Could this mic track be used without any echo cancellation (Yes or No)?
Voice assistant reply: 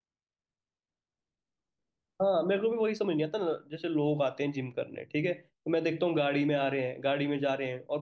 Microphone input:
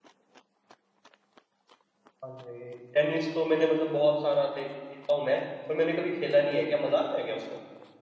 Yes